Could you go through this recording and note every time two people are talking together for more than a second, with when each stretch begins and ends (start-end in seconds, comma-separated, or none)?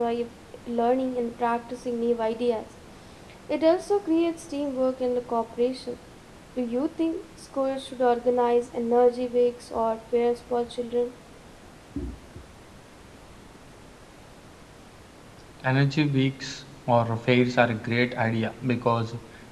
none